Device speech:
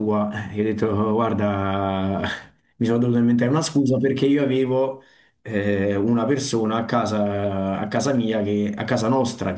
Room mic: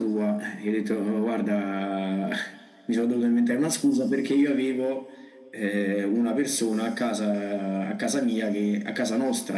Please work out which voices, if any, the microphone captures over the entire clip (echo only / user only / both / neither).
echo only